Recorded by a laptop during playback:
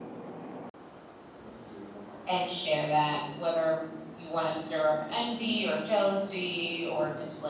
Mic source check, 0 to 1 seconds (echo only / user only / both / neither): neither